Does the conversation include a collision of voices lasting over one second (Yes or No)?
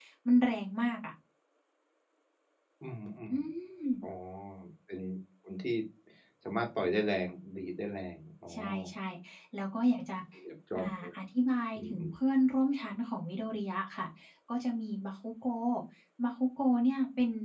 No